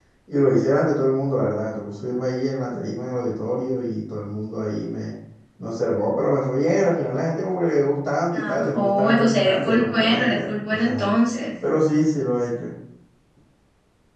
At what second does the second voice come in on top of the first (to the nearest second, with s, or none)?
8 s